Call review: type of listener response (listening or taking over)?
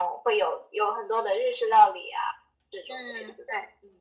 taking over